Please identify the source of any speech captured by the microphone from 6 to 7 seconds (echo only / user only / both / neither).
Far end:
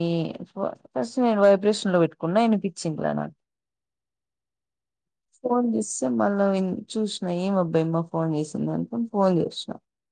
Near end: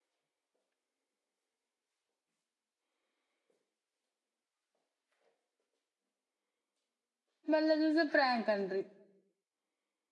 neither